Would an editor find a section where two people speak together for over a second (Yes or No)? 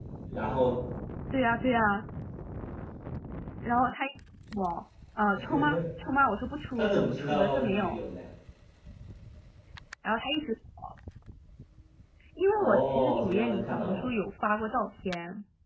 Yes